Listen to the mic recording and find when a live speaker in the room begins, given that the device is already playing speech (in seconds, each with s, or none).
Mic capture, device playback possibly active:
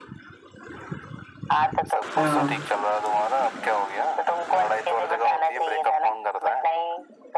2.2 s